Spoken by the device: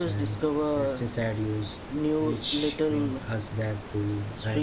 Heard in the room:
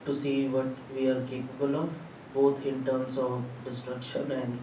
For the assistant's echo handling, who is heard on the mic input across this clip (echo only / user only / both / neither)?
user only